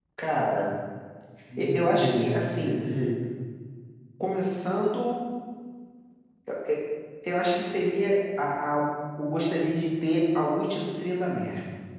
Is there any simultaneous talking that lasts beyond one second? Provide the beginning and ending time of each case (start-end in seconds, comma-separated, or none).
1.6-2.8